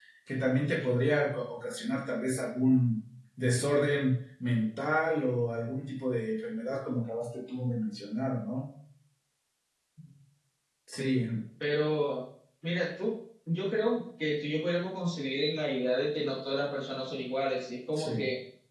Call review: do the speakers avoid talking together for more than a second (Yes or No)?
Yes